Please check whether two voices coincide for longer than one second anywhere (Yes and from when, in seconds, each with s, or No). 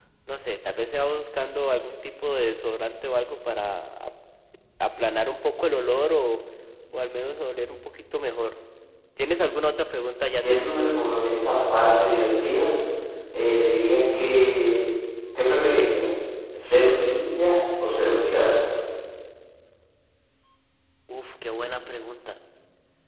No